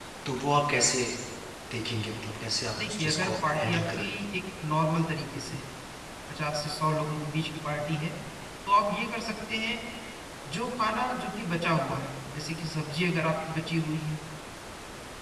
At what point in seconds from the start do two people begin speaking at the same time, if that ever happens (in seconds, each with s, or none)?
2.8 s